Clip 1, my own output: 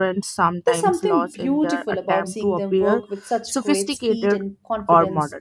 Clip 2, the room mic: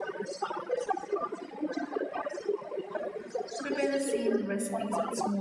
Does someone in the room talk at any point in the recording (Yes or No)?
Yes